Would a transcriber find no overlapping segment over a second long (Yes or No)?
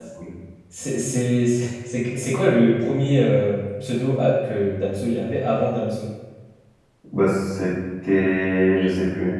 Yes